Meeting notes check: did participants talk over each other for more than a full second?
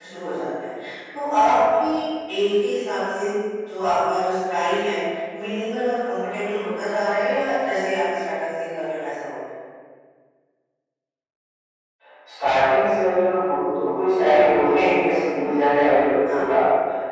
No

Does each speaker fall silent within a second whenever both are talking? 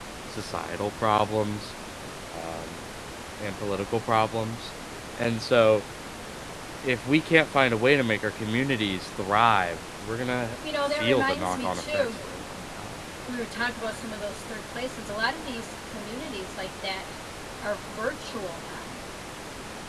No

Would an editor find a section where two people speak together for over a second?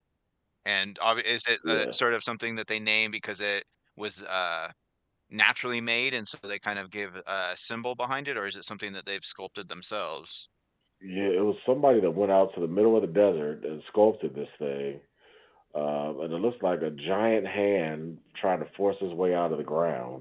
No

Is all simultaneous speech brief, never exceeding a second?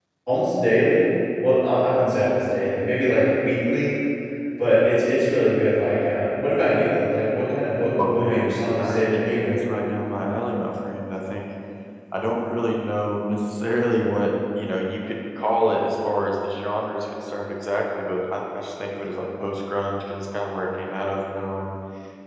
No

